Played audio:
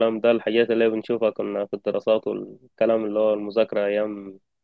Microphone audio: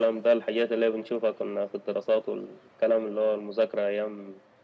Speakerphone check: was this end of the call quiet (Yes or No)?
Yes